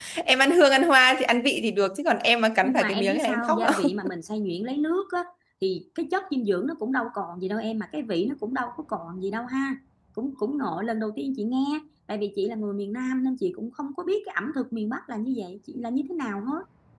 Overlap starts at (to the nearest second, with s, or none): 3 s